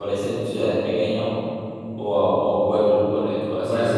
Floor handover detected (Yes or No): Yes